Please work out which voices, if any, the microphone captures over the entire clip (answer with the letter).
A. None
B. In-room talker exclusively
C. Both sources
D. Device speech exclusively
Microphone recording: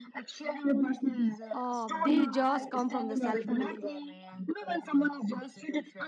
C